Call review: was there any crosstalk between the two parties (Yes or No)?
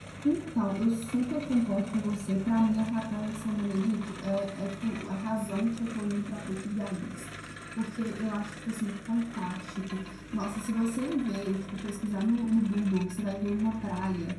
No